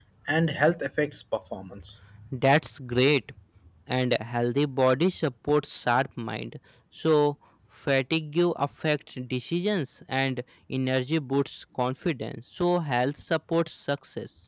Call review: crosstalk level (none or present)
none